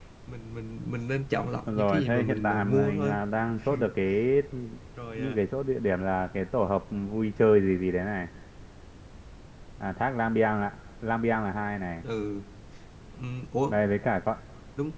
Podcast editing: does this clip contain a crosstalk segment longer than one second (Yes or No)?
Yes